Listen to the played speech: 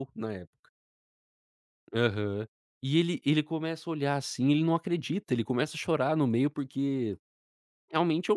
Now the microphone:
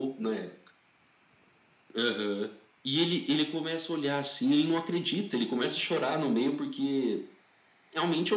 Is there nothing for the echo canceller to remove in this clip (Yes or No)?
No